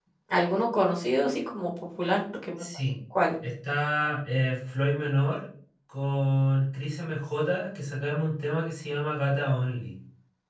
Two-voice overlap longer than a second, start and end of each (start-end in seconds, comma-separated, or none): none